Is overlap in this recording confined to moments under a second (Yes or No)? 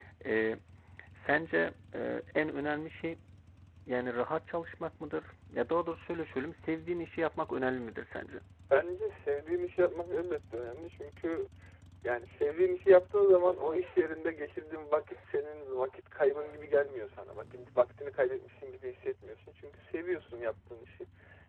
Yes